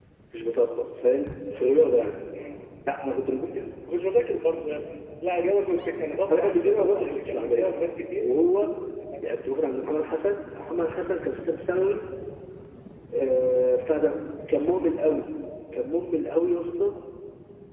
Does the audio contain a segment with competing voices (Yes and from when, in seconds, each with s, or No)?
Yes, from 6.3 s